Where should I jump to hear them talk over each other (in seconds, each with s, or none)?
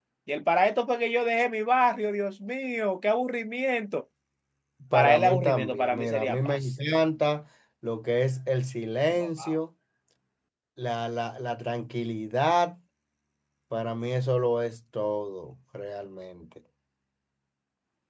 4.9 s